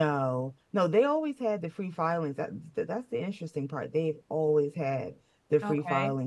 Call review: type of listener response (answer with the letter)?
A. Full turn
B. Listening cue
B